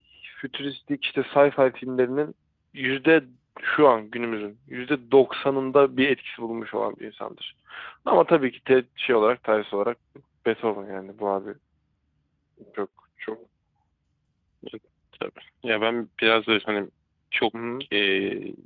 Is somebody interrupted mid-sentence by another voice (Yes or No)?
No